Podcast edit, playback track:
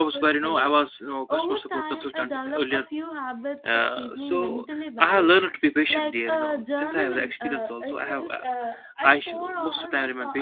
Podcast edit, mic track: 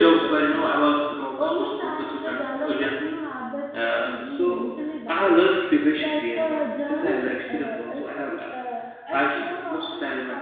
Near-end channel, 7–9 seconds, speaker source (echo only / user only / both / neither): echo only